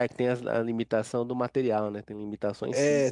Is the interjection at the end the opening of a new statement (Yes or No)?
Yes